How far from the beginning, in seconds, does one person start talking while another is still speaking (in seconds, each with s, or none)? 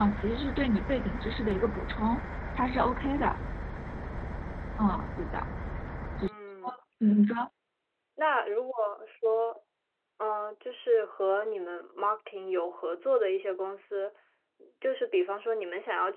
none